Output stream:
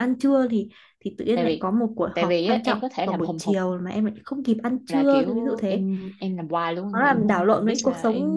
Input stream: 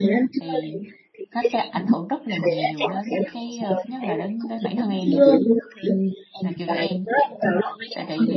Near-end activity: present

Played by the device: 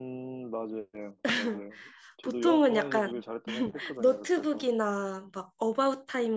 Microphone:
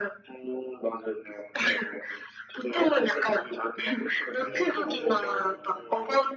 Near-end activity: present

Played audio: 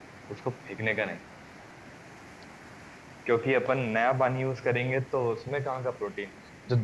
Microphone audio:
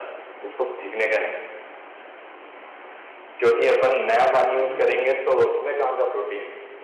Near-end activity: present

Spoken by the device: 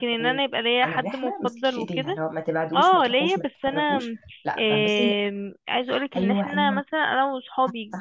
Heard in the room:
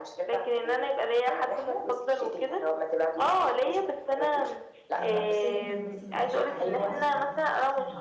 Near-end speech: present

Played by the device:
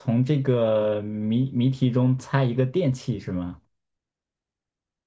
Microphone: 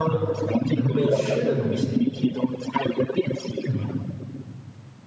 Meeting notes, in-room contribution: present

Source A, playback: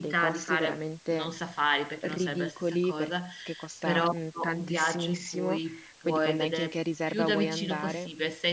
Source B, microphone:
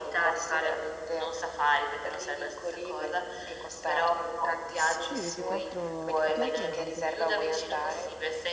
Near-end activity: present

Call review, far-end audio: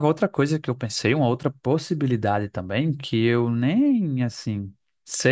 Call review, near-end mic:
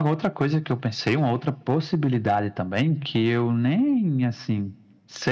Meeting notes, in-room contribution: none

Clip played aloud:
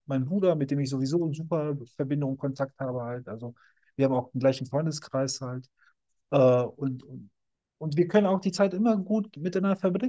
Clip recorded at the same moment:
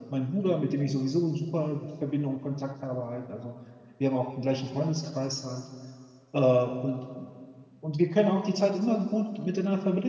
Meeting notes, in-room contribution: none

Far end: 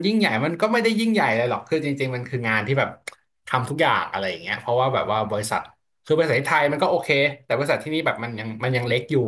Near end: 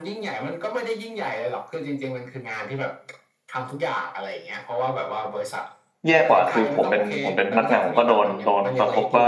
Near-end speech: present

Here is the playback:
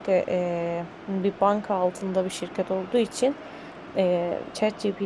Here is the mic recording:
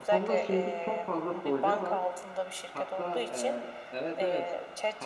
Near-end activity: present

